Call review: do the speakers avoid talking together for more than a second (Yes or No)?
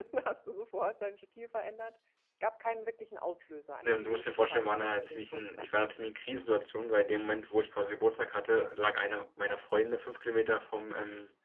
No